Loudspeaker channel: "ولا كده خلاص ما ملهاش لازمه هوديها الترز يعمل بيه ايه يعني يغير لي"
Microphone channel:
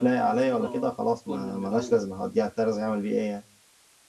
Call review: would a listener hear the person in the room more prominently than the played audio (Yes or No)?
No